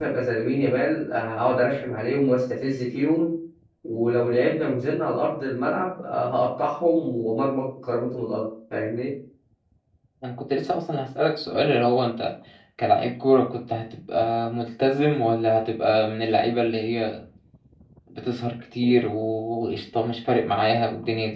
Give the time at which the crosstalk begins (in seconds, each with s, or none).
none